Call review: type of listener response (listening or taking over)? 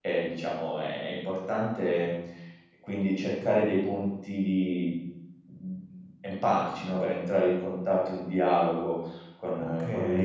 taking over